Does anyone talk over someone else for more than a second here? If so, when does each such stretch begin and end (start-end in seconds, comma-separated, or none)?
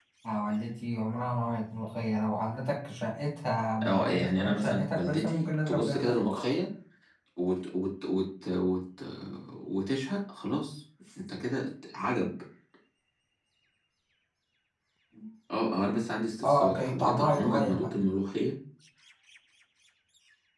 3.8-6.1, 16.4-17.9